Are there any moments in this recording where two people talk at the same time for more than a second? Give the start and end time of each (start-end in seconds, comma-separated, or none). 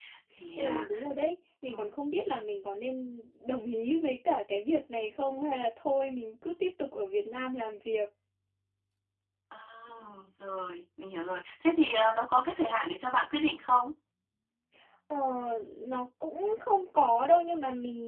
none